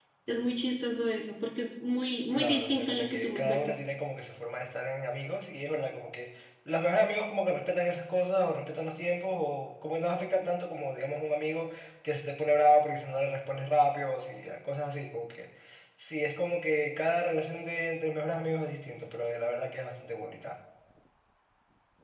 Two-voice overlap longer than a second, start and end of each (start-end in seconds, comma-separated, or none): 2.3-3.8